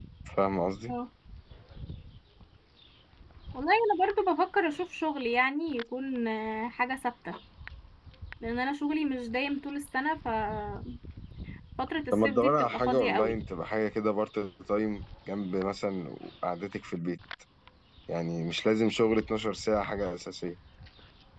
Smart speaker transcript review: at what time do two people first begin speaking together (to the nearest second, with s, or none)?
12 s